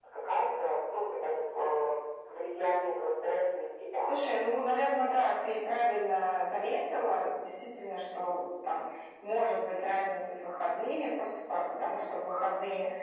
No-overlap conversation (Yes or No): Yes